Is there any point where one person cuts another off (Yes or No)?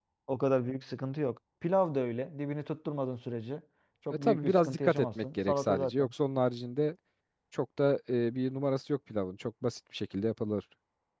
Yes